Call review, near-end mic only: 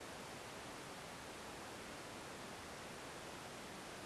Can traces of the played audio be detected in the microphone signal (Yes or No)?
No